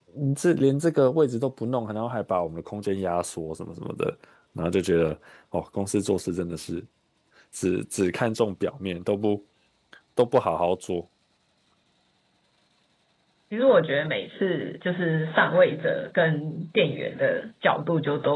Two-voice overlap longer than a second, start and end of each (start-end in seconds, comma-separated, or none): none